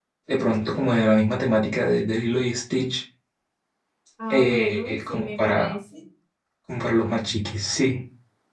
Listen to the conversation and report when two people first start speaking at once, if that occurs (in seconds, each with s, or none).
4.3 s